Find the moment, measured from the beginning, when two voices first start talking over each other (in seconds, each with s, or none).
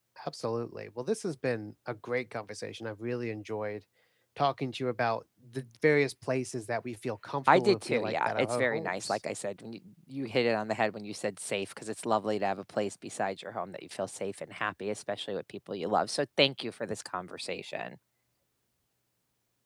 7.5 s